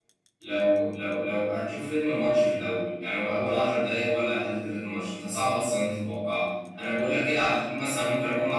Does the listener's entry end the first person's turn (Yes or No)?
No